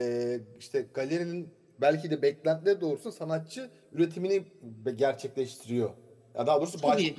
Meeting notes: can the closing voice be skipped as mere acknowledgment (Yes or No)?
Yes